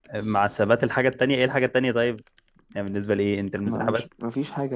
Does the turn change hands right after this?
Yes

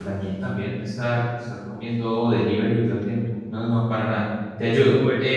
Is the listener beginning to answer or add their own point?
Yes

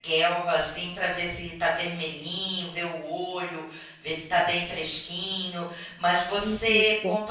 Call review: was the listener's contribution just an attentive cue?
Yes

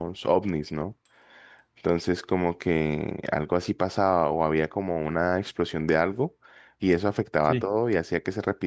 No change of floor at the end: Yes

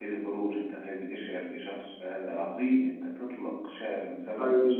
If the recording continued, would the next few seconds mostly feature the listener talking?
Yes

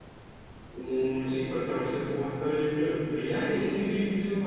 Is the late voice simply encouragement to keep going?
Yes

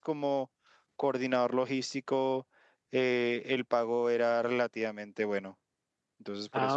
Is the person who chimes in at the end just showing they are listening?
No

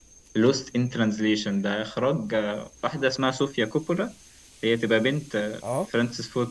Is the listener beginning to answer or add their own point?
No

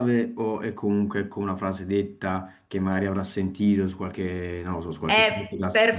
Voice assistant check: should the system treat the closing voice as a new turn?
Yes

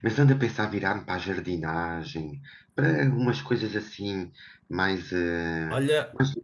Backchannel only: No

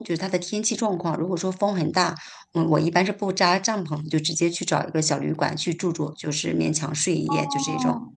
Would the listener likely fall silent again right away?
No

